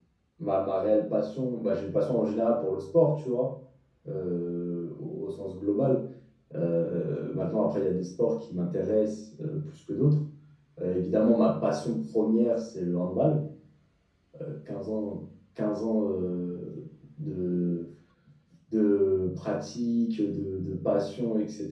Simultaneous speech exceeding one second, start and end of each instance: none

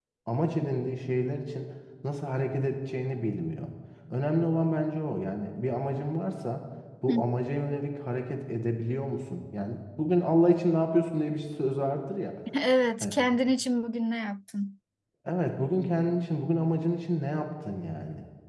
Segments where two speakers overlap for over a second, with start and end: none

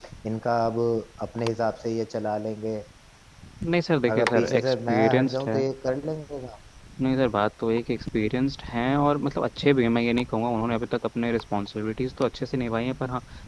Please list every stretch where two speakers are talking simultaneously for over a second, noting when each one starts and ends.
4.1-5.6

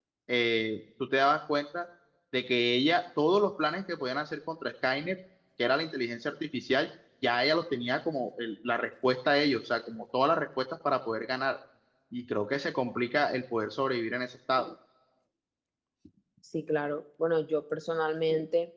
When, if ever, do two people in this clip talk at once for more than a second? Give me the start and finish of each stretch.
none

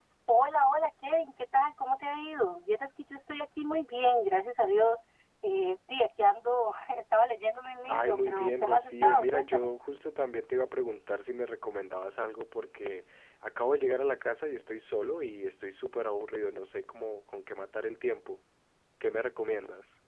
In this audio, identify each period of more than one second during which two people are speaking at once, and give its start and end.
7.9-9.7

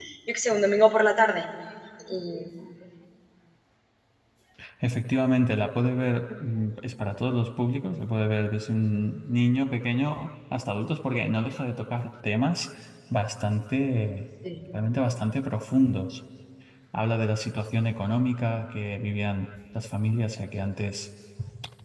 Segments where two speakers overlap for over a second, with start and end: none

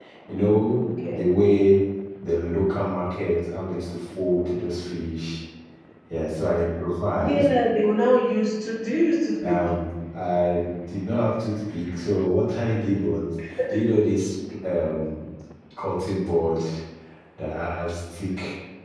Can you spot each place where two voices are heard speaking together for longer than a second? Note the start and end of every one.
none

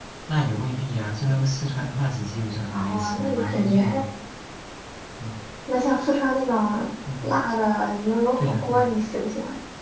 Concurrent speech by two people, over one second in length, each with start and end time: 2.7-4.0

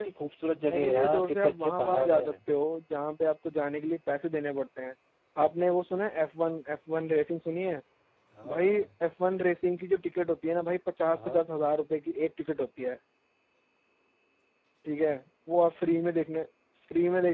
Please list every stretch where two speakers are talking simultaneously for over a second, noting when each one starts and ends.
0.8-2.3

